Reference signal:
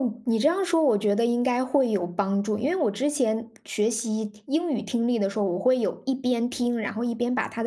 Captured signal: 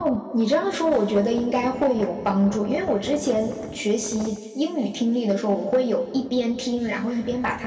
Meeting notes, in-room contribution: none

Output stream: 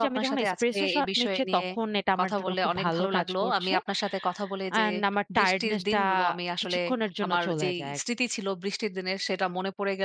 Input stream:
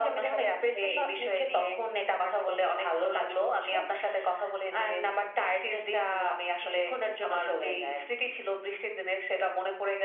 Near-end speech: none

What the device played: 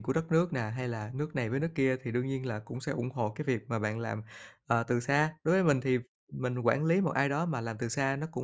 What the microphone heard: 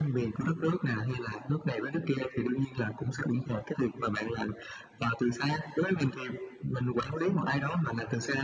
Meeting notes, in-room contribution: none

